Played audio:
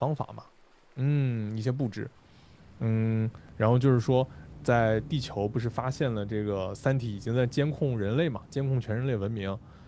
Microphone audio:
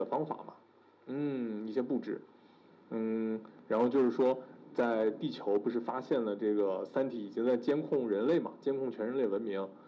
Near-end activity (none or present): none